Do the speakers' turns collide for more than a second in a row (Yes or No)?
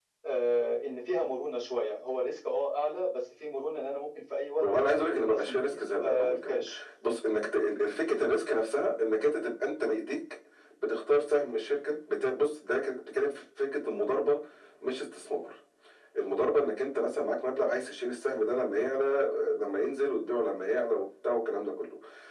Yes